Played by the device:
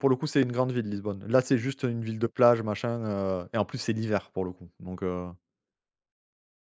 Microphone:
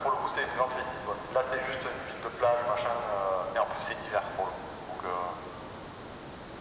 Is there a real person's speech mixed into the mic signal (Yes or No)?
No